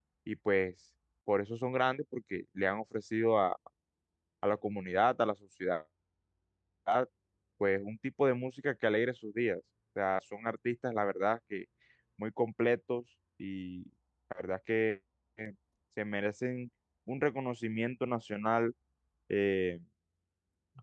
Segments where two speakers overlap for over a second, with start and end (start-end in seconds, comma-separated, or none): none